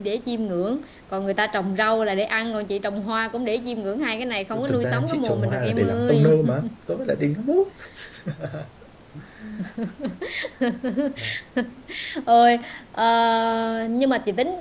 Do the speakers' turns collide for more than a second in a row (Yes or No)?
Yes